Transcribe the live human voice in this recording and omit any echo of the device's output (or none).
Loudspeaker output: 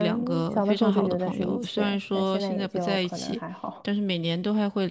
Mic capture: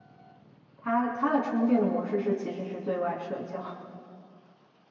他他的充电的模式是其实是对外社交，